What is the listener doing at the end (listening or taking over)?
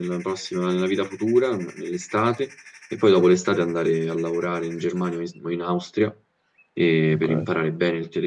listening